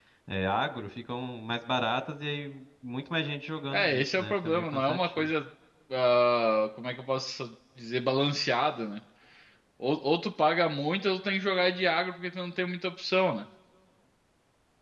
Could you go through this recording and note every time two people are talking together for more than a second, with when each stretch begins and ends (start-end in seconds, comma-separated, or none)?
3.7-5.3